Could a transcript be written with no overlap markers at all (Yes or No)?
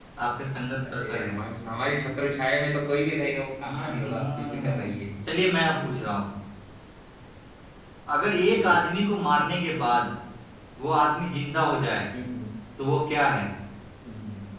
No